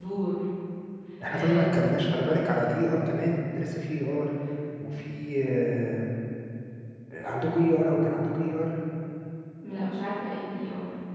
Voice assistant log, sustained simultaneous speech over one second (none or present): none